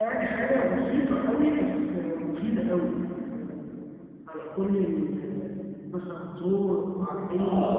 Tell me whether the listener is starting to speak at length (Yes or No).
Yes